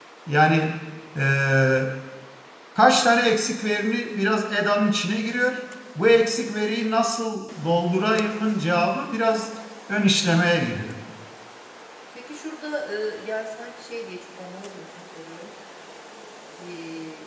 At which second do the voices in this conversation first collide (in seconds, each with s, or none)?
none